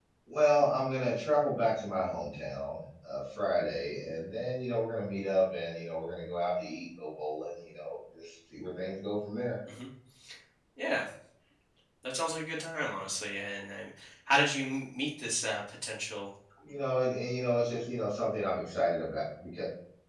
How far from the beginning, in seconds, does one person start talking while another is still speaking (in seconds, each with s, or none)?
none